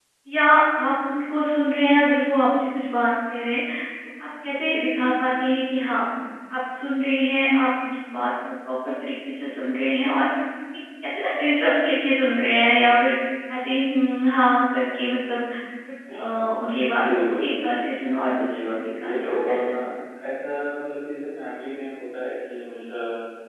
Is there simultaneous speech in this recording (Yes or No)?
Yes